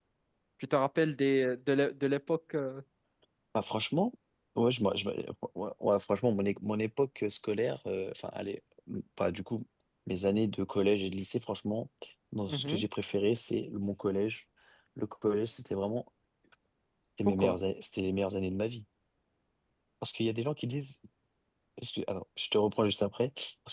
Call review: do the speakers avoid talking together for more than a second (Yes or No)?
Yes